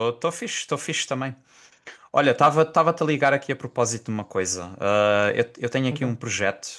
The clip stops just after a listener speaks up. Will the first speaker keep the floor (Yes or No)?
Yes